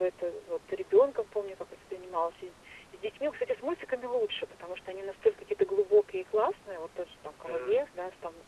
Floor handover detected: No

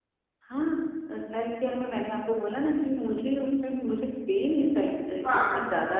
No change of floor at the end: Yes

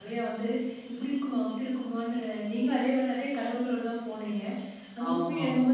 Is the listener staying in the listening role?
Yes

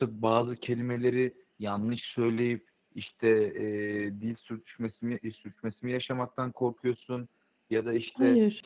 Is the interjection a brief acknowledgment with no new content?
Yes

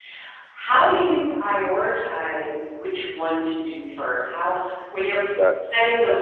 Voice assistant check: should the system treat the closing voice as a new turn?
No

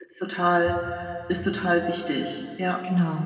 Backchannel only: No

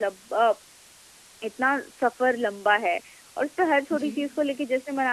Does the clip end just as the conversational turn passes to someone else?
No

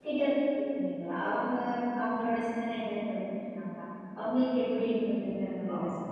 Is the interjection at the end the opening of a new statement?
Yes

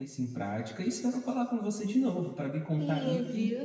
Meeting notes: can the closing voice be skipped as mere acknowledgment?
No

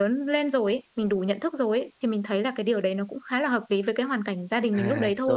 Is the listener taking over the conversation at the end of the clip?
Yes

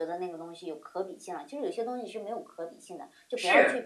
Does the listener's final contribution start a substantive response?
Yes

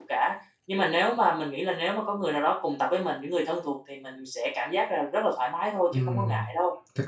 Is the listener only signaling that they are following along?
No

